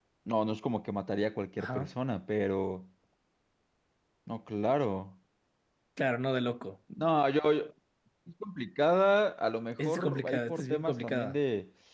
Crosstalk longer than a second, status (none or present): present